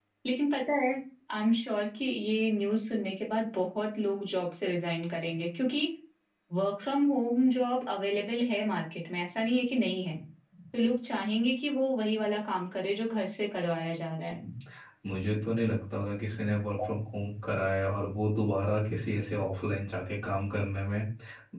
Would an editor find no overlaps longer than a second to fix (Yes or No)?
Yes